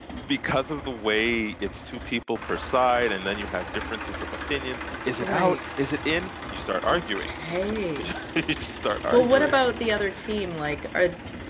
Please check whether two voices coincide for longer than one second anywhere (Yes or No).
No